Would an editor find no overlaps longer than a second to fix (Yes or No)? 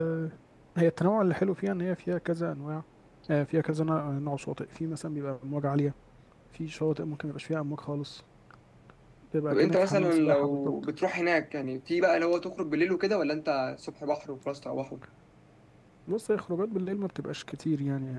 No